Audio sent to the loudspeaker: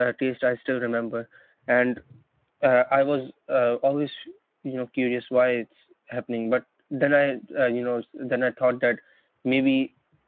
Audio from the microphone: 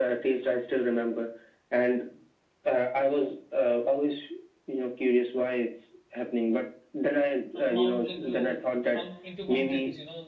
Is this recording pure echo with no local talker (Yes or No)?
No